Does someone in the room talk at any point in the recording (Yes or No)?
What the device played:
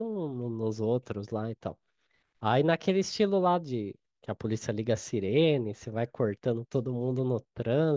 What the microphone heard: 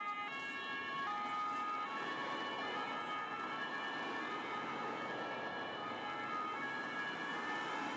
No